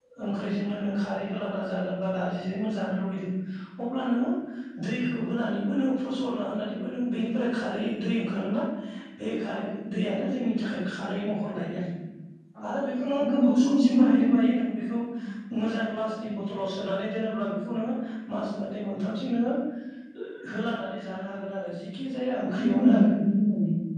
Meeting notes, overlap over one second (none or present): present